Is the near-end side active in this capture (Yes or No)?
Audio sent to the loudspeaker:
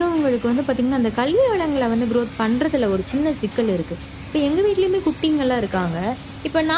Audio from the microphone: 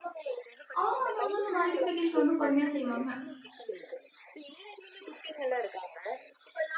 Yes